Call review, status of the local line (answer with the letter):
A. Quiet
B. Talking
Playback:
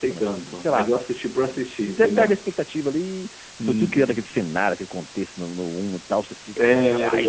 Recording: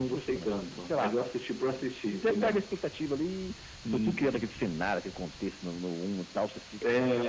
A